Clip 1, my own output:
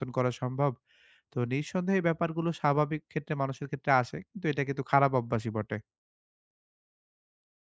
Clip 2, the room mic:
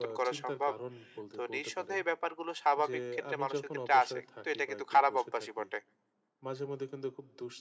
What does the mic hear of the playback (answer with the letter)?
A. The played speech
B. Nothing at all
A